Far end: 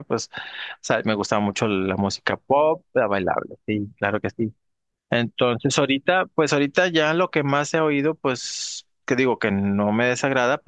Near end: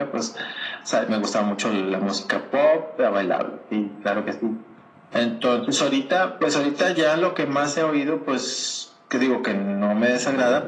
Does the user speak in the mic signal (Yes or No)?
No